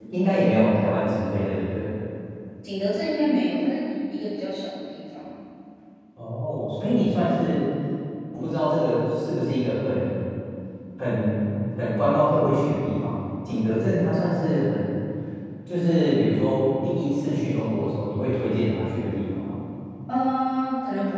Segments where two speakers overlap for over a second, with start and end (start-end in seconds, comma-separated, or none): none